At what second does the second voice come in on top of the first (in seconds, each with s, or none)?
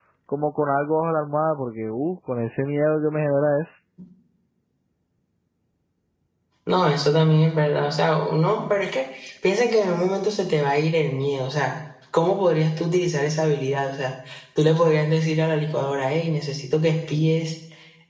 none